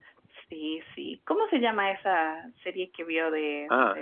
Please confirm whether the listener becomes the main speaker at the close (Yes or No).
Yes